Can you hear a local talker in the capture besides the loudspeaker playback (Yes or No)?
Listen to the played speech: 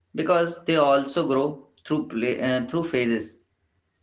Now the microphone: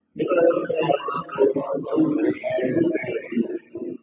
No